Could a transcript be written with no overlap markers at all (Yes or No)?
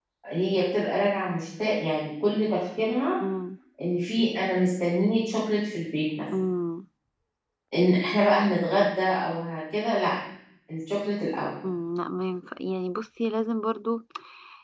Yes